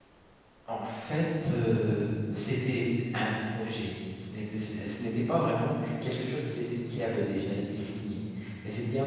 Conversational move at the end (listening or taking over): listening